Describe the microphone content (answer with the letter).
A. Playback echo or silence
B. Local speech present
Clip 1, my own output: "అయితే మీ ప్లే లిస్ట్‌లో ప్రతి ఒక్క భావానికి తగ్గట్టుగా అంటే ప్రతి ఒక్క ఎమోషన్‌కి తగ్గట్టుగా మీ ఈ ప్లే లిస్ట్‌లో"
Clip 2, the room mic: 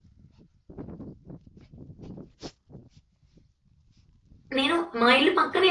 B